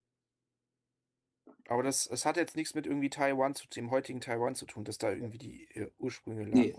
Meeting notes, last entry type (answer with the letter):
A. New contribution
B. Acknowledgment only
A